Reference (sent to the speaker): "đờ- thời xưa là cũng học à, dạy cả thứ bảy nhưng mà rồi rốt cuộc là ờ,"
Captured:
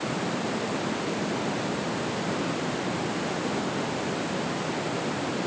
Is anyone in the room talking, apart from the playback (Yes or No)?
No